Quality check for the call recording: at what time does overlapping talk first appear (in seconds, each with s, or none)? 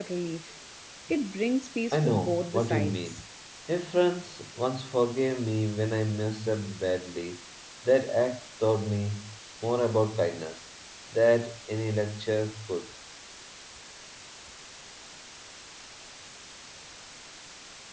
1.9 s